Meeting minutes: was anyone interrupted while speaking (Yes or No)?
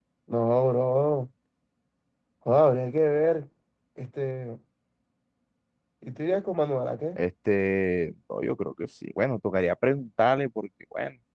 No